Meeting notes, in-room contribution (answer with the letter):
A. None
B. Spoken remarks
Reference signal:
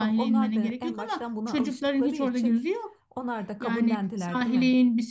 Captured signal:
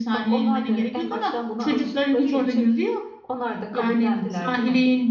A